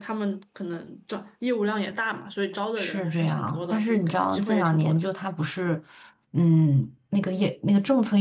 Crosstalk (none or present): present